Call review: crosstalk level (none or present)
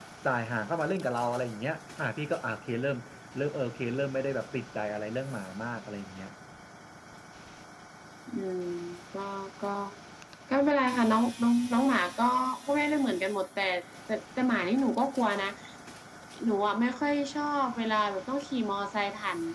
none